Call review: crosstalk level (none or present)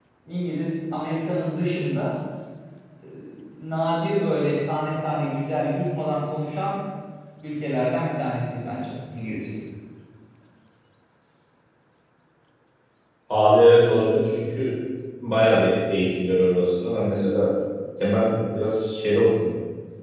none